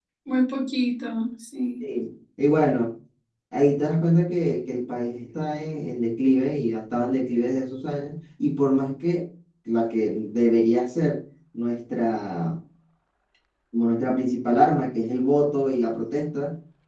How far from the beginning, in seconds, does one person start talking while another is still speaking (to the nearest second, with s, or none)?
none